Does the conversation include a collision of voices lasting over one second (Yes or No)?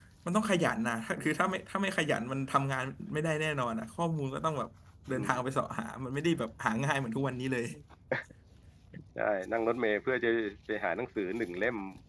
No